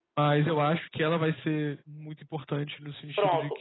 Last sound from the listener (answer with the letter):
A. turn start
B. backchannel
A